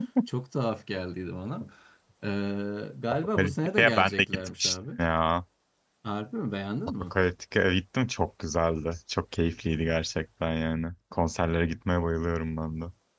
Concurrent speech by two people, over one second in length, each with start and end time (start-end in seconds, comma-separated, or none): 3.4-4.8